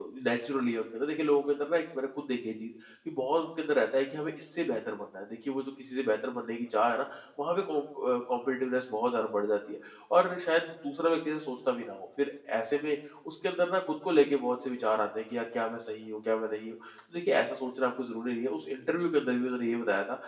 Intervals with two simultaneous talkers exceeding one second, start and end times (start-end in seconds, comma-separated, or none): none